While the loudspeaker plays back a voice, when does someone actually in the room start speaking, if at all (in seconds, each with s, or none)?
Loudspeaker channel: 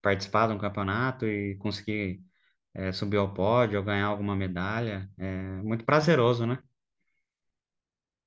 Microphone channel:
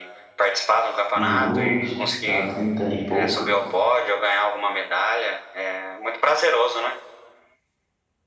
1.1 s